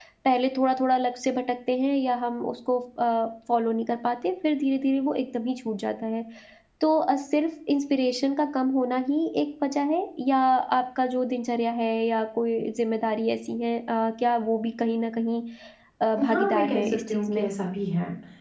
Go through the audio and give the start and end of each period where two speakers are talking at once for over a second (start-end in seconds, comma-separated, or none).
16.3-17.5